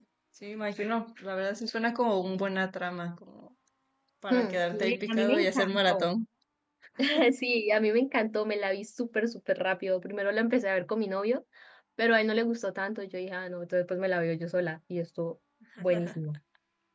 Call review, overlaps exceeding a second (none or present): present